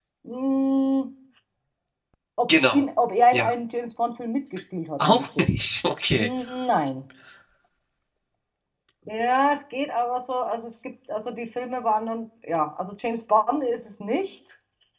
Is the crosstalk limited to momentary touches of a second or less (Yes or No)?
Yes